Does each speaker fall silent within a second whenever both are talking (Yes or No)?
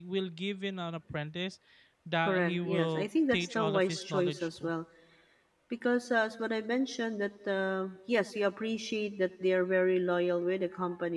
No